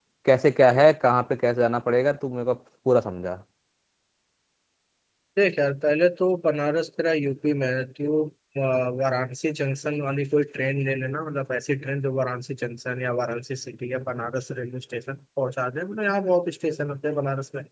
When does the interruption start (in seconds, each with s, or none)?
none